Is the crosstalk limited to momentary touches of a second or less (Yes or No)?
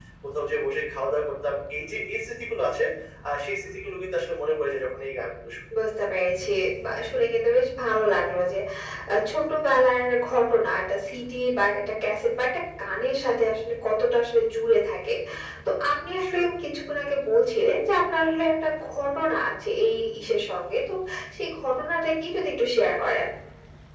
Yes